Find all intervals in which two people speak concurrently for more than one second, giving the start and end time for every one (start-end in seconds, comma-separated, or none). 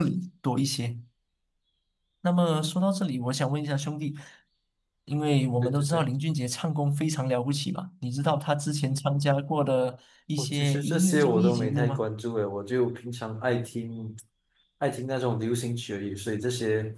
10.4-12.1